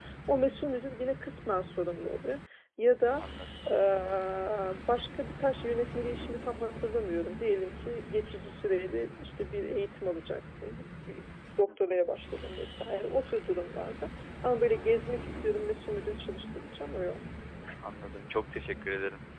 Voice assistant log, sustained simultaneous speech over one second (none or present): none